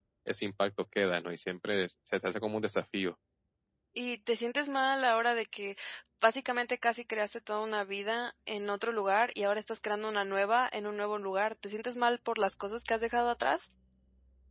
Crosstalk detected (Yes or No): No